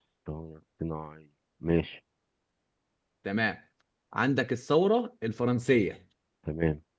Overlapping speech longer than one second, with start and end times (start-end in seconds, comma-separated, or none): none